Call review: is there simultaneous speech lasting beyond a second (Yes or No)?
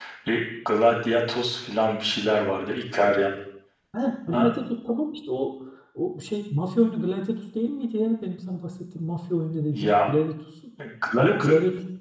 No